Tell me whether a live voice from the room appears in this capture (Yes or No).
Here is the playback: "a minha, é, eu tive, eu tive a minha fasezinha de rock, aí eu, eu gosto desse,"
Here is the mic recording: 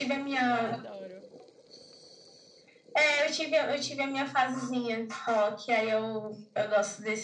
Yes